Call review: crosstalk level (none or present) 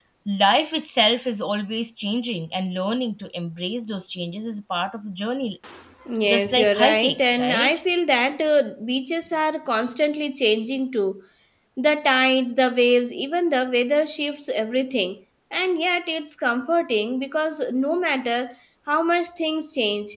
present